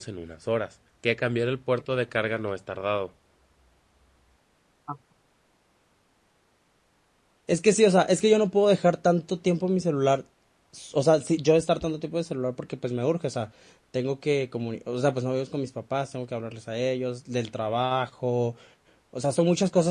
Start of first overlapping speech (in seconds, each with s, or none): none